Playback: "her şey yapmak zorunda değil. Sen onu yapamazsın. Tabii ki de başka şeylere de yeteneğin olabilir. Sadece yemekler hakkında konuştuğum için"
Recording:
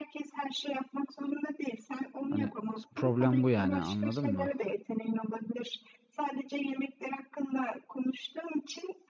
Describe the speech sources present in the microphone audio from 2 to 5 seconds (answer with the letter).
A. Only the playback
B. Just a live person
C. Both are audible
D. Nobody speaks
C